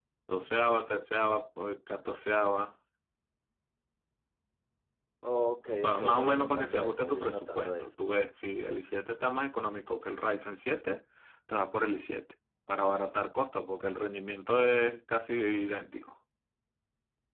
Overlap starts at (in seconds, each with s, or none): 5.8 s